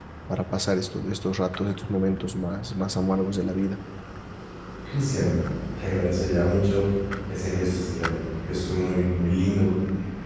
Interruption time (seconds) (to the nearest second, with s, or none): none